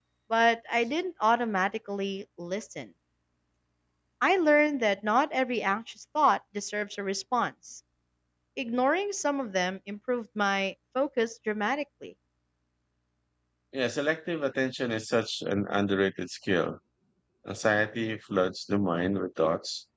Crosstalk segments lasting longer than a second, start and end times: none

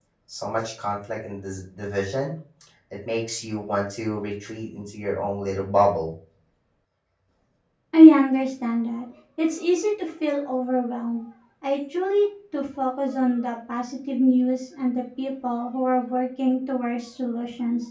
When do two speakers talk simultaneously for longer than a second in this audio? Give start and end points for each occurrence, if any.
none

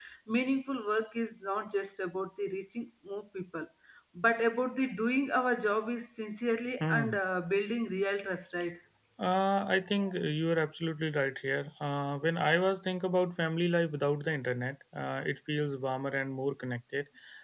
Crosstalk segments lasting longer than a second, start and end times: none

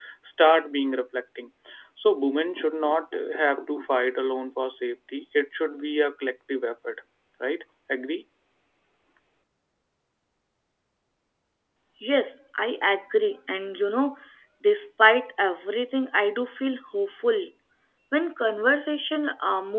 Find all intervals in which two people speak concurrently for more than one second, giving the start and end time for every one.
none

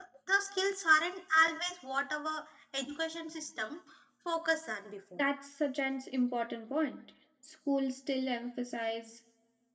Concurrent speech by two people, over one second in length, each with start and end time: none

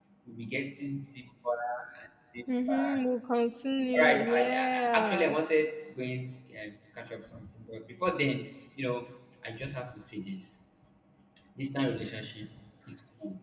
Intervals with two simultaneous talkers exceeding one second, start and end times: 3.9-5.3

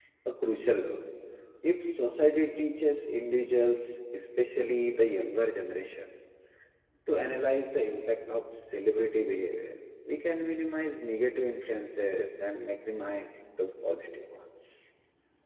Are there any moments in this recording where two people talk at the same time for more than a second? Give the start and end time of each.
none

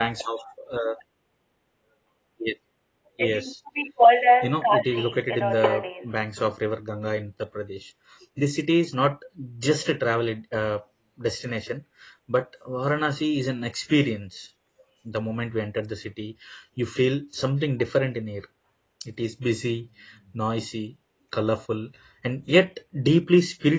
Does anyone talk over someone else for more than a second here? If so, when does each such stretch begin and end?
4.4-5.6

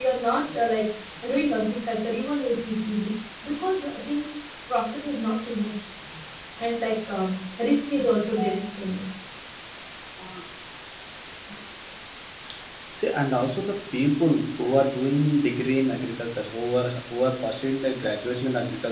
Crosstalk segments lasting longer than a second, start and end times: none

